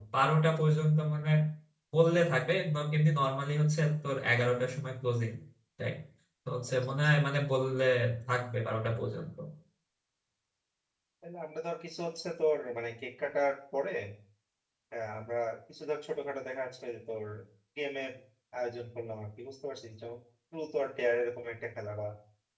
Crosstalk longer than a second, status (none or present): none